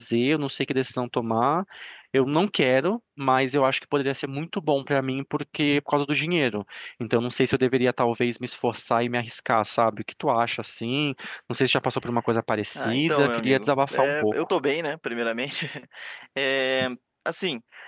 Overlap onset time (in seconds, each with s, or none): 12.8 s